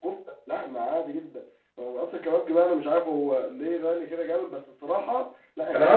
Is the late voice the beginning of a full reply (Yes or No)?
Yes